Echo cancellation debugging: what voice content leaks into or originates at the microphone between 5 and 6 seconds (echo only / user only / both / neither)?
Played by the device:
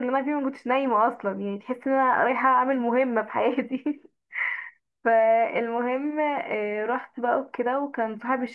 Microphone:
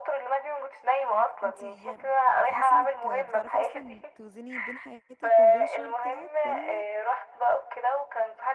both